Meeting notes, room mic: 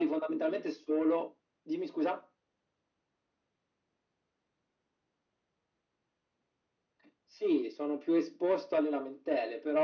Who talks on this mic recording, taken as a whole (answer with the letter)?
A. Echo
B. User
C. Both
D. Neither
A